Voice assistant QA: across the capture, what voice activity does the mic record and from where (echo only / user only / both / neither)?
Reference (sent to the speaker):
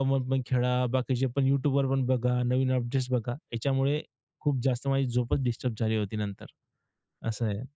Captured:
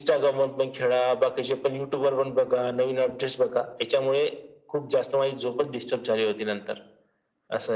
echo only